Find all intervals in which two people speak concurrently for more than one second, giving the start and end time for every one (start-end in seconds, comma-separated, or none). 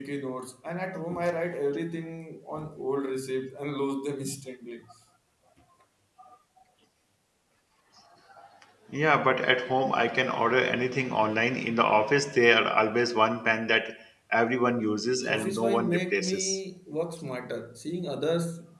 15.3-16.6